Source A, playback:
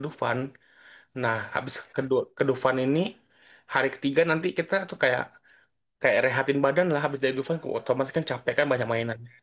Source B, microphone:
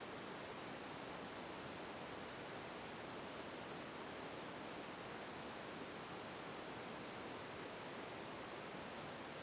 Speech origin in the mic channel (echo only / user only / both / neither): neither